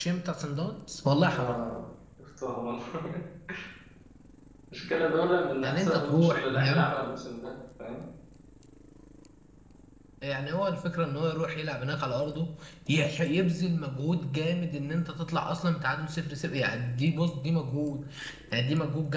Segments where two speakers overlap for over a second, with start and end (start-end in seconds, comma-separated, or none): 5.6-6.9